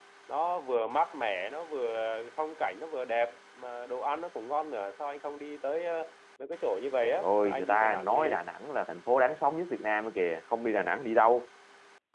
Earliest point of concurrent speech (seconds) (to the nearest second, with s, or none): 7 s